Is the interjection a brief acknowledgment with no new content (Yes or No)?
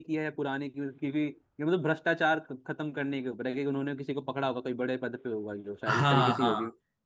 No